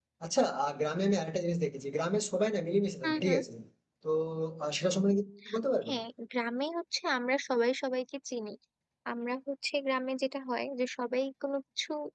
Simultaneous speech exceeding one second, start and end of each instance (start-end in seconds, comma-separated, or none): none